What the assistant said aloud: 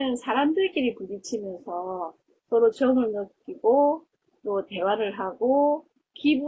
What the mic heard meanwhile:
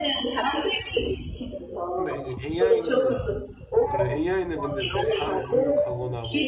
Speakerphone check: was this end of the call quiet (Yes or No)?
No